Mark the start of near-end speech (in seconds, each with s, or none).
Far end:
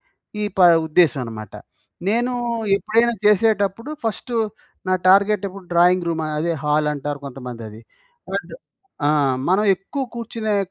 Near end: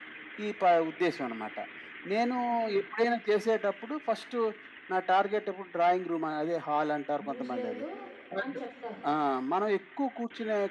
7.3 s